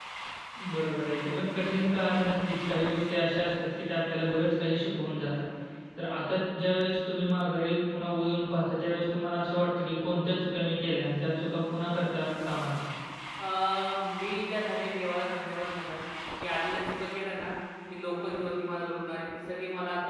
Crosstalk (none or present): none